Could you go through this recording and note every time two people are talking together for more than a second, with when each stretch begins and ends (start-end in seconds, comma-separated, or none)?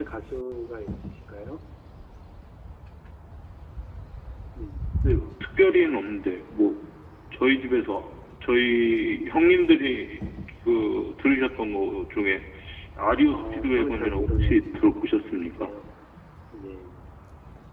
13.3-14.9